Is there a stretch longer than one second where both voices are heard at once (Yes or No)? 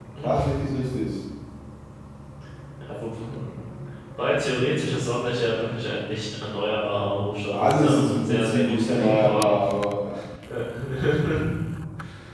Yes